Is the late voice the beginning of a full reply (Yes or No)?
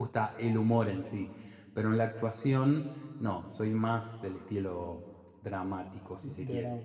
Yes